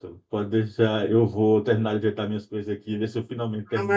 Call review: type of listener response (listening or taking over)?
taking over